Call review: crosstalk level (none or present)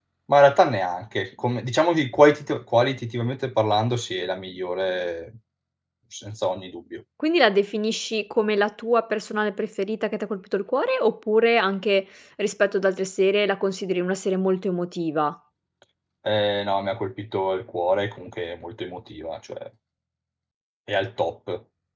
none